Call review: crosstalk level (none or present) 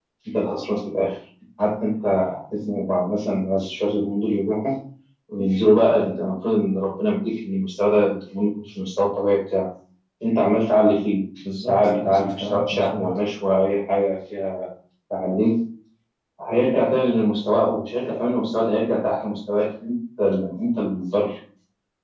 present